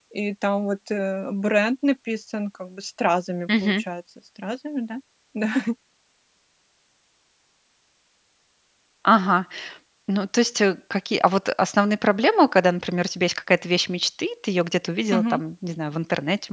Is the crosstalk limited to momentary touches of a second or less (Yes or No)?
Yes